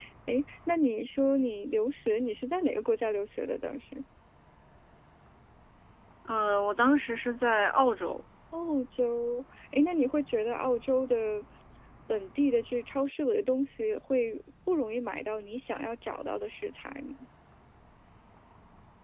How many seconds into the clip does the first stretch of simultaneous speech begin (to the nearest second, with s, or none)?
none